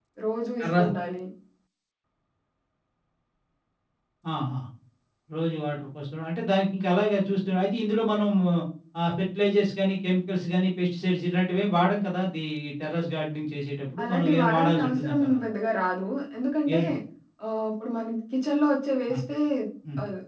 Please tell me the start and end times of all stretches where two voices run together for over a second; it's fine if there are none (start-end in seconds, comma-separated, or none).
14.0-15.4